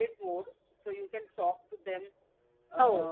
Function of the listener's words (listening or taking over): taking over